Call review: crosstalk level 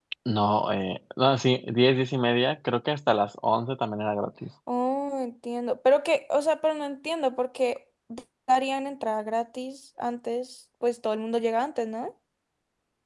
none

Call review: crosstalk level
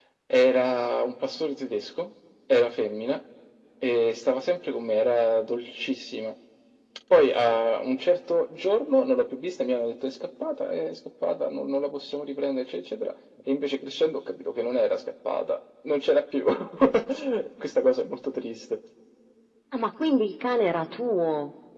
none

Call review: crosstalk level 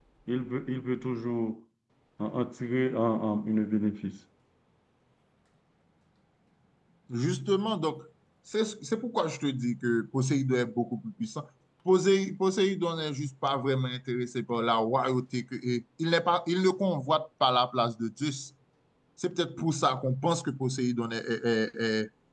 none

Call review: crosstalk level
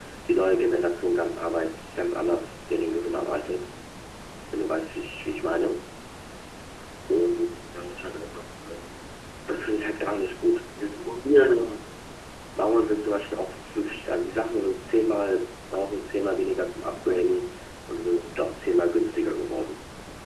none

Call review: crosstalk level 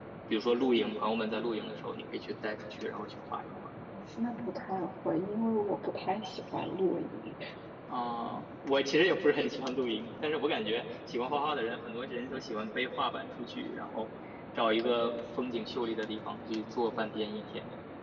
none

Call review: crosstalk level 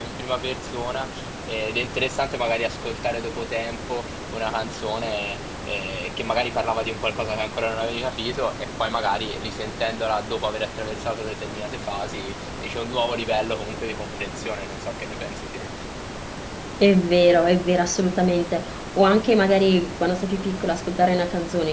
none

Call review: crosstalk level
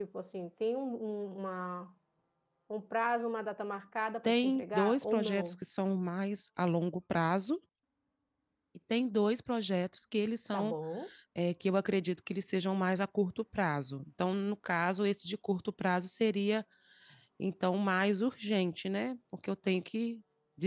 present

